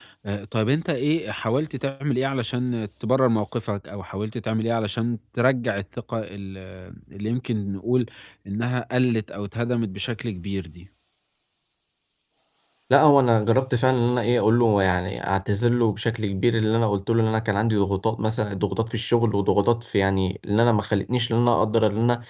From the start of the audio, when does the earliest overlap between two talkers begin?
none

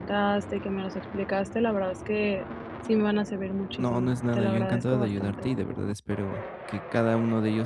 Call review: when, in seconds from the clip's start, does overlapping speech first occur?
3.8 s

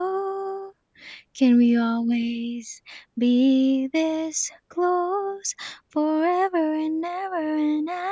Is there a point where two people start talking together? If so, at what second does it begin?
none

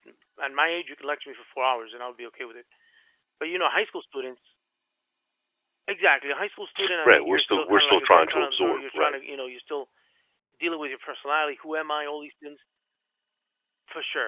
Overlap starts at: 7.0 s

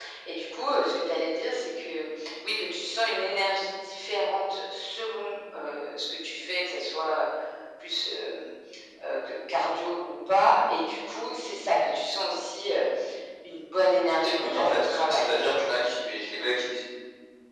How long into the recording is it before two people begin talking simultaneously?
14.2 s

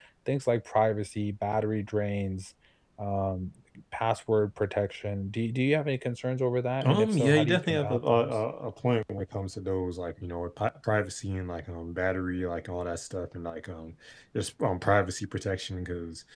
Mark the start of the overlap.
6.8 s

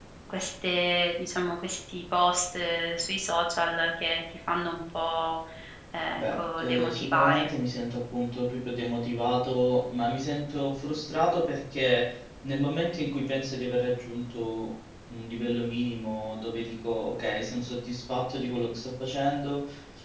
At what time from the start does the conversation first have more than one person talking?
6.2 s

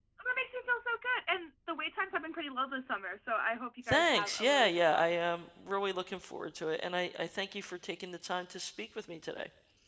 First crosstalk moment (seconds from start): 3.8 s

